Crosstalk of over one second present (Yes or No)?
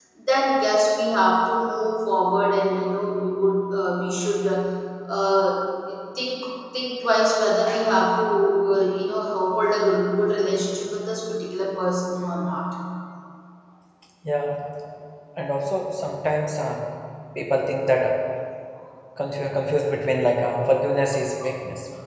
No